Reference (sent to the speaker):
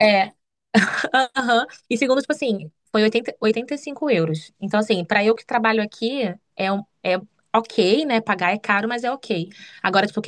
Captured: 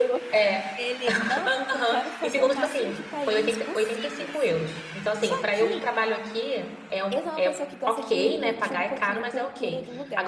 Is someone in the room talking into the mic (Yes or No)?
Yes